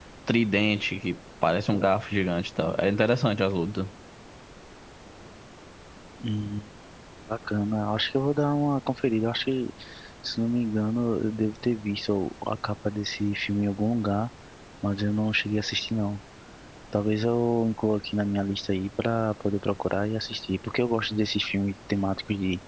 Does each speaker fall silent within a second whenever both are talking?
Yes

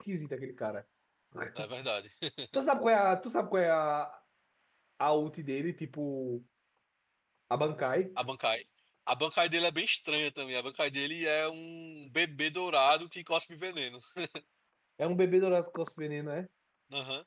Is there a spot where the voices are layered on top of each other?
No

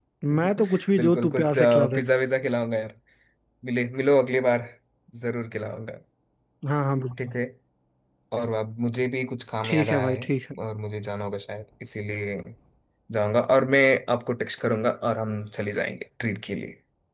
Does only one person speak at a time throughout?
No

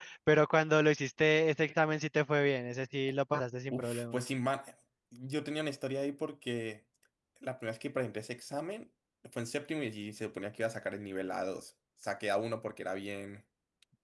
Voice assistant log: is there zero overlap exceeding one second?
Yes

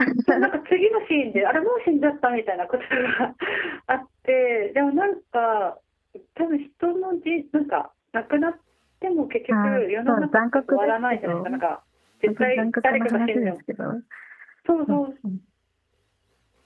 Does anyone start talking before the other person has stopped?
Yes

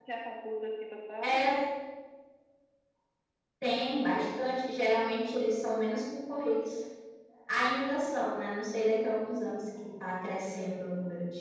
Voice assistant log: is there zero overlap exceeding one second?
Yes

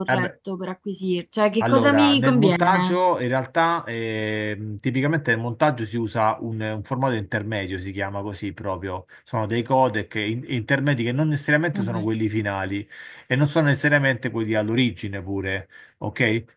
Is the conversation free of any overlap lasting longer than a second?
No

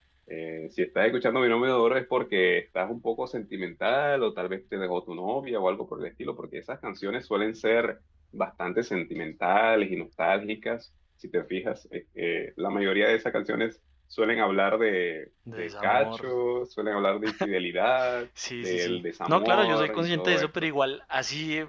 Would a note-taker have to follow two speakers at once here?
Yes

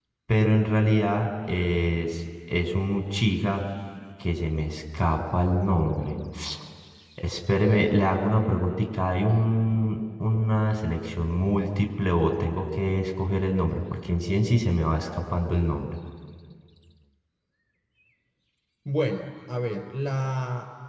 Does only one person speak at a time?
Yes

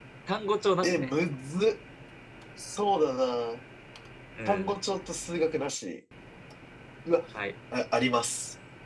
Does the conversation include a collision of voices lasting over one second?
No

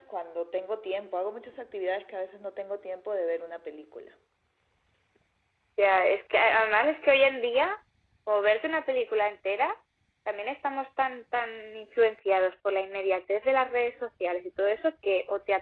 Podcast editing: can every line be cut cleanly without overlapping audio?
Yes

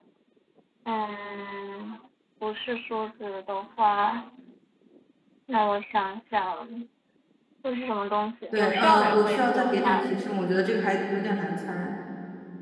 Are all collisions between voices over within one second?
No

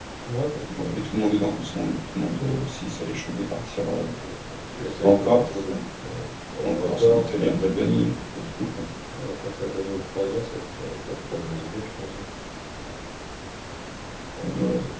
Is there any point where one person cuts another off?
Yes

